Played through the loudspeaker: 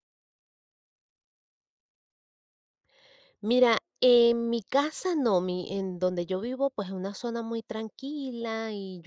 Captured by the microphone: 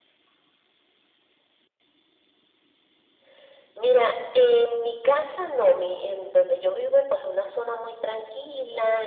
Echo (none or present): present